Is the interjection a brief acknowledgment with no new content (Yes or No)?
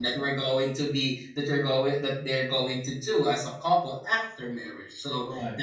Yes